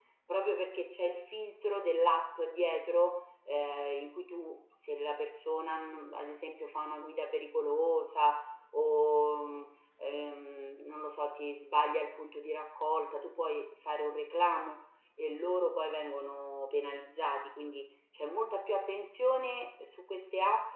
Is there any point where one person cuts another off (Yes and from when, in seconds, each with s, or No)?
No